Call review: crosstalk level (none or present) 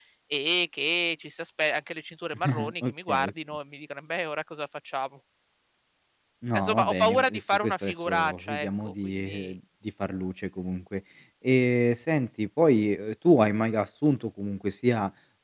present